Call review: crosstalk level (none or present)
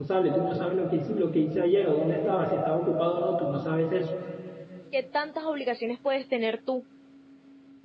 none